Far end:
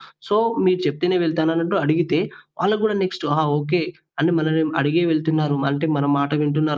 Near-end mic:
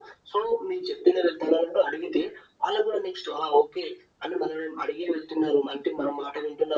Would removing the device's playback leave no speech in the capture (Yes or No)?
Yes